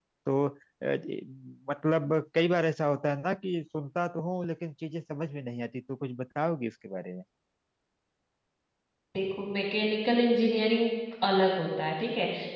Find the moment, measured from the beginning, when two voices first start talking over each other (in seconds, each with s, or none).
none